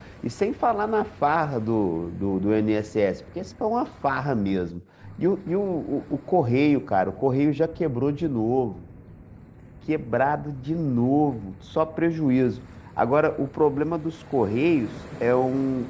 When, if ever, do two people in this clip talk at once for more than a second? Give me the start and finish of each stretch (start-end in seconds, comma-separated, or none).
none